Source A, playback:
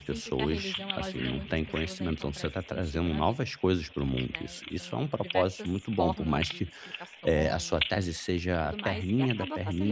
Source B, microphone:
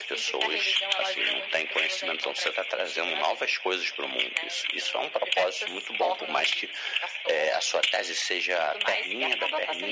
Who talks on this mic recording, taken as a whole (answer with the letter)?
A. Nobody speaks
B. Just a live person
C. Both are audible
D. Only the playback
D